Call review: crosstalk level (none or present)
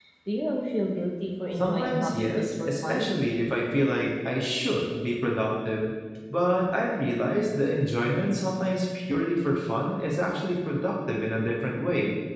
present